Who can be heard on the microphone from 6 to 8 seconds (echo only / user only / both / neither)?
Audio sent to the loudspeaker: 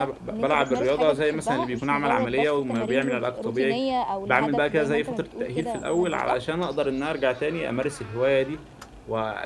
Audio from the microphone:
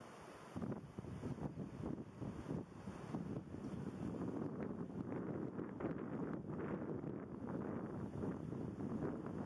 neither